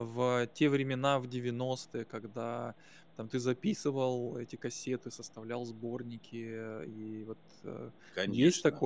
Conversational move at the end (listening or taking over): taking over